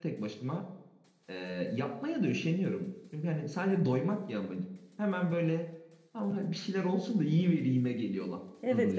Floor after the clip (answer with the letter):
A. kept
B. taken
B